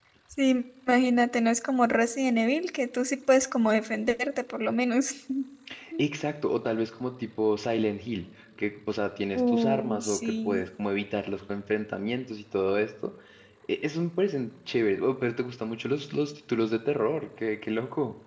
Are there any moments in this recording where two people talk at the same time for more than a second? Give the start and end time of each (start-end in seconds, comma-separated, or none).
9.4-10.6